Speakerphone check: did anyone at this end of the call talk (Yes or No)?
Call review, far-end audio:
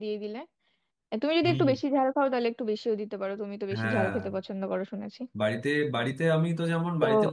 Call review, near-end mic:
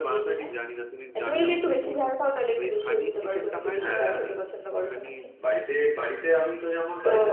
Yes